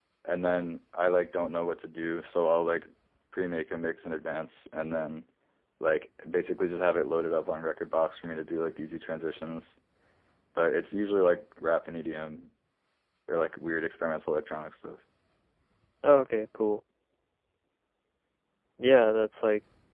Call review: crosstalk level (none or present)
none